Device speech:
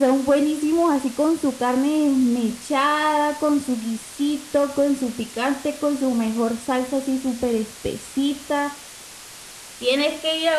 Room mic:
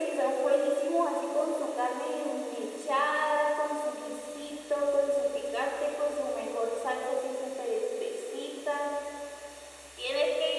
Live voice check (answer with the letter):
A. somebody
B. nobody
B